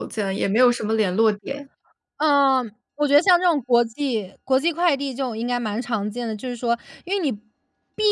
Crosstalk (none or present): none